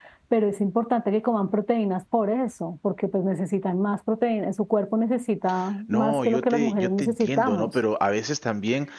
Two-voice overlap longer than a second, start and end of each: 5.9-7.8

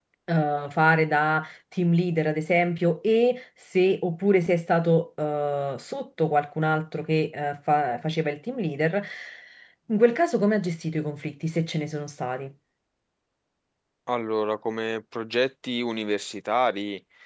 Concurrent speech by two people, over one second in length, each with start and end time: none

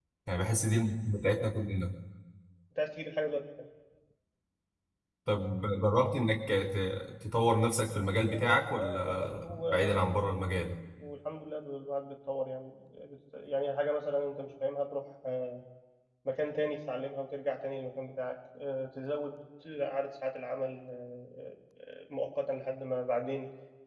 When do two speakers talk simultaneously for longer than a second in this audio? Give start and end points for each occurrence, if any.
8.3-10.8

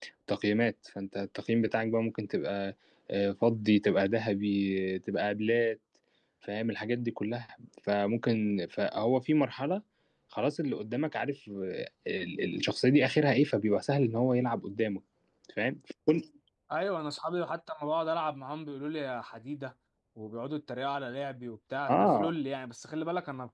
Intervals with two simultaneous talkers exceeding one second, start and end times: none

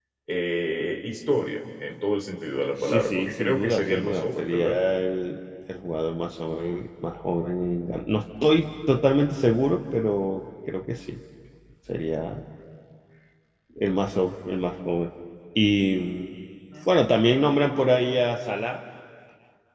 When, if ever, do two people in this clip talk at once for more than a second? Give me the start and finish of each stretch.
2.8-4.7

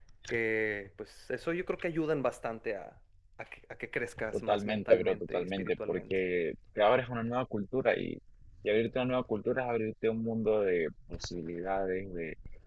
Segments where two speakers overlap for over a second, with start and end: 4.3-6.1

